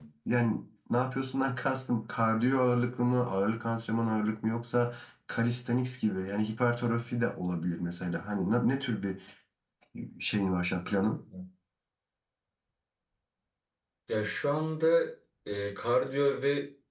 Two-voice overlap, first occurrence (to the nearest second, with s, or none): none